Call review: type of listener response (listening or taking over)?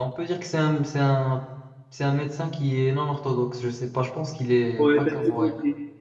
taking over